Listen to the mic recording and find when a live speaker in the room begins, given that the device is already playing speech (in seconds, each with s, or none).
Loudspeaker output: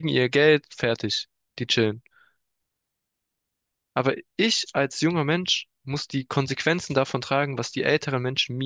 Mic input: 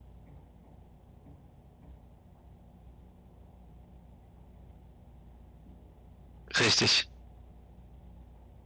6.6 s